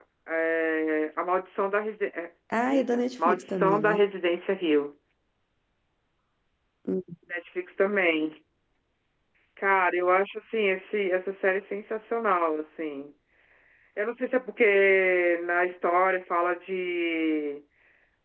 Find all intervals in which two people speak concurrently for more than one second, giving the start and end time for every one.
2.7-4.0

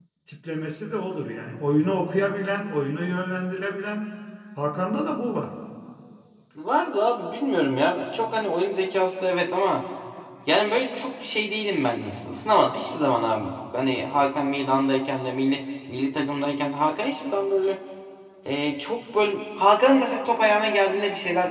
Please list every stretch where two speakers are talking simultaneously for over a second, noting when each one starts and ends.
none

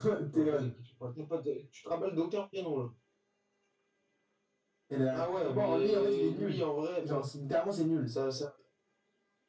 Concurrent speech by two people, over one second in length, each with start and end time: 5.1-6.6

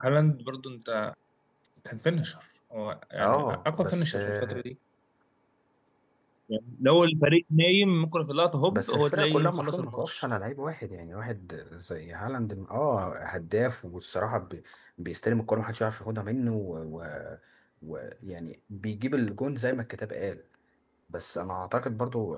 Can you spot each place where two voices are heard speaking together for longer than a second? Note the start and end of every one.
3.2-4.6, 8.7-10.2

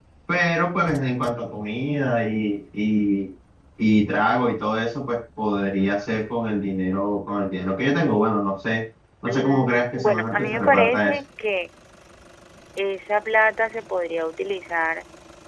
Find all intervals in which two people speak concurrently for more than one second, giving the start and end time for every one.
9.3-11.1

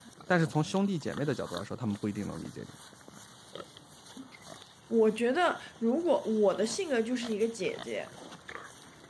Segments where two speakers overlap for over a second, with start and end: none

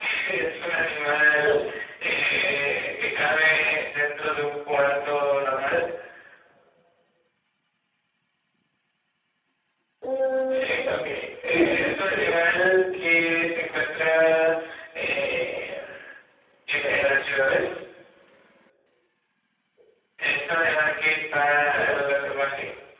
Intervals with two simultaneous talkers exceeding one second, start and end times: 10.5-12.3

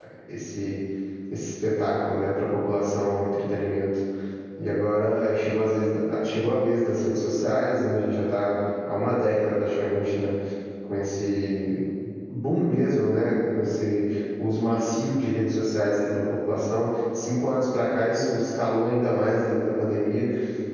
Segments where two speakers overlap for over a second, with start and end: none

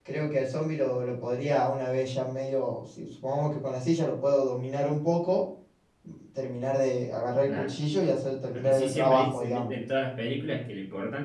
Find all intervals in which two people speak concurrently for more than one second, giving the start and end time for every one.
8.5-9.7

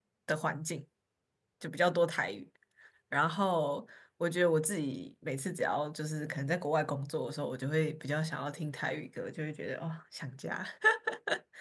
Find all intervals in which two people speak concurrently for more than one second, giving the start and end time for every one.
none

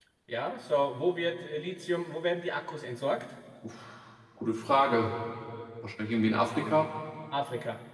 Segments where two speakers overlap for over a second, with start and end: none

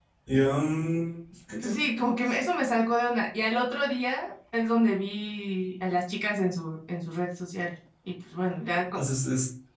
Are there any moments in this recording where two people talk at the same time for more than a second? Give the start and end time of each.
none

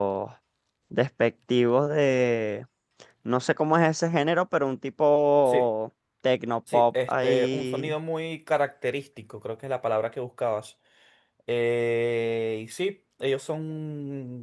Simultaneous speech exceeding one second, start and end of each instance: 6.7-7.9

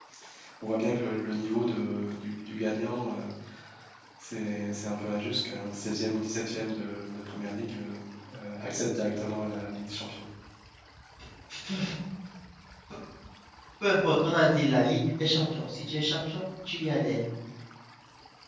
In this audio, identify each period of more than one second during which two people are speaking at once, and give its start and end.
none

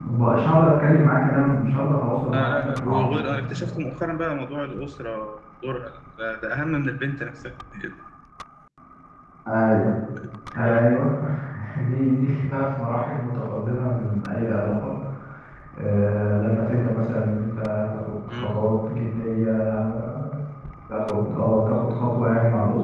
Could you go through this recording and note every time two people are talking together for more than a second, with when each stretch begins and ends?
2.3-3.7

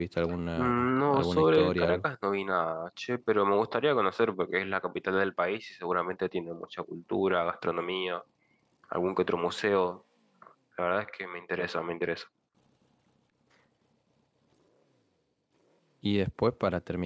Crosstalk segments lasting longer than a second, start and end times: 0.6-2.0

